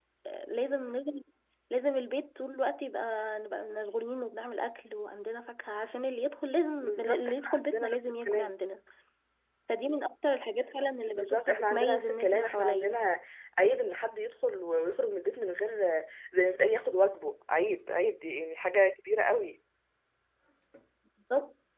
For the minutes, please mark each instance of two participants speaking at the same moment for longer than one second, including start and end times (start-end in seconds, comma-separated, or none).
6.8-8.5, 11.1-13.0